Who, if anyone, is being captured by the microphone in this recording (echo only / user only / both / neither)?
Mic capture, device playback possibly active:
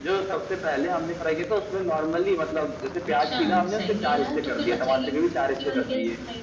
both